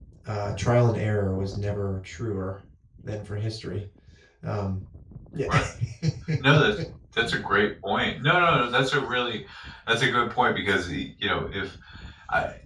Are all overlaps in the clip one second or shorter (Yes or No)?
Yes